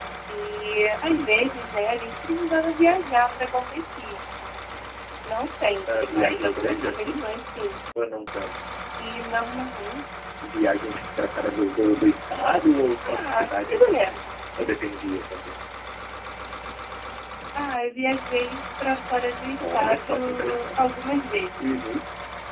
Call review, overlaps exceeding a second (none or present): present